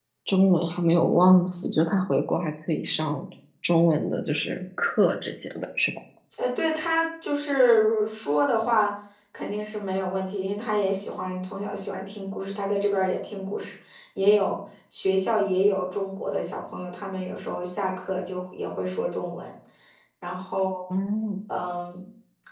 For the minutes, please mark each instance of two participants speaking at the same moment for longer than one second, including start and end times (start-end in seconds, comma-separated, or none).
none